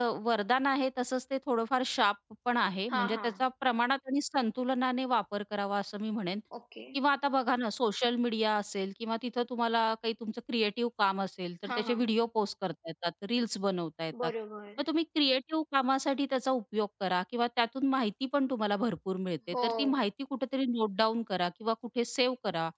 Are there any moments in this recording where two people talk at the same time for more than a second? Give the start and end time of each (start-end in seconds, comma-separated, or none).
none